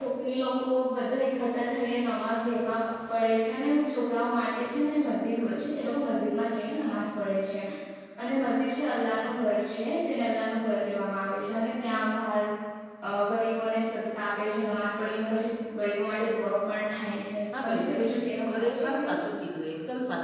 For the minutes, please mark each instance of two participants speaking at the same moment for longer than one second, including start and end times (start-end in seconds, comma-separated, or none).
17.6-19.1